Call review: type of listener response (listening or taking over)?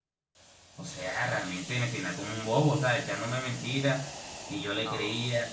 listening